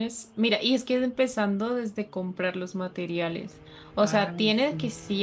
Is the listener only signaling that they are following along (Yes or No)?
Yes